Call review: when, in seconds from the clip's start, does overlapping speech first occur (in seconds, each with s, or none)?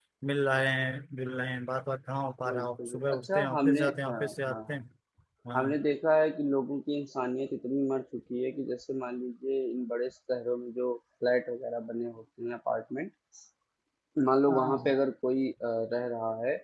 2.5 s